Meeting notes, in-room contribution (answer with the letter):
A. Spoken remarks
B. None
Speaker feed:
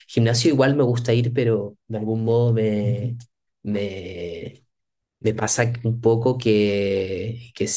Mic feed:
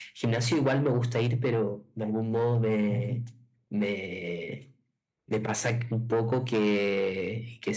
B